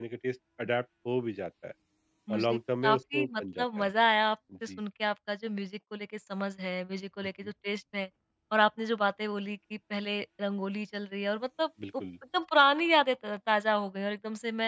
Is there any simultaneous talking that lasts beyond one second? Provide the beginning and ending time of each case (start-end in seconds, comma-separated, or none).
2.3-3.9